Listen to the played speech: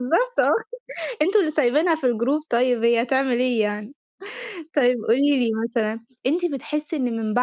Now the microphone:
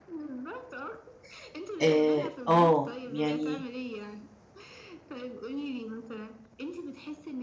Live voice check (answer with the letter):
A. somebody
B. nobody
A